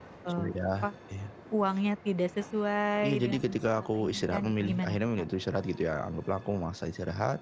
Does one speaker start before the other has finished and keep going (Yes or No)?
Yes